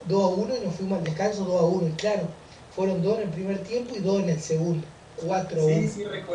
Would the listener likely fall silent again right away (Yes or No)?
No